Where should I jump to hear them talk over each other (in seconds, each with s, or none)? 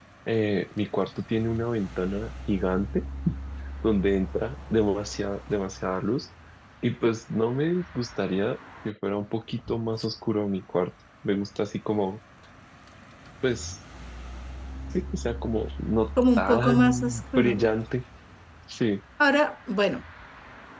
16.2 s